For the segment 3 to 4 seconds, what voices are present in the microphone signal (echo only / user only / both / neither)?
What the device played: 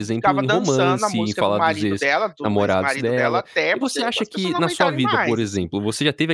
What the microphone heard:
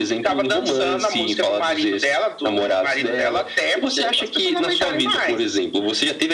echo only